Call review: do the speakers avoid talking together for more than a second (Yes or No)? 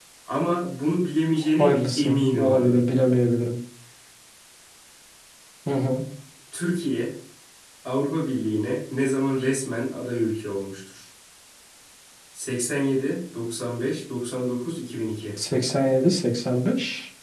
No